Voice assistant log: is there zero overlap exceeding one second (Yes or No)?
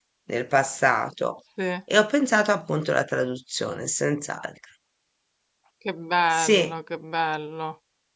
Yes